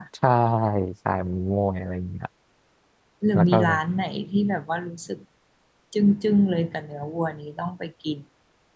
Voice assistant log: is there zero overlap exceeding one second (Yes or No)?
Yes